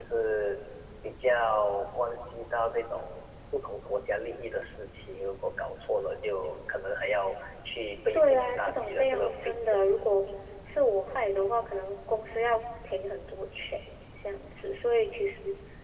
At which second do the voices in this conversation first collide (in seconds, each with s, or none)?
8.1 s